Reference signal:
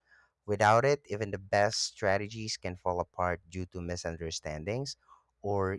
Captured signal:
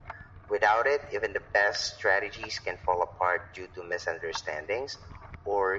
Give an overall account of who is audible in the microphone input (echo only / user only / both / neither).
echo only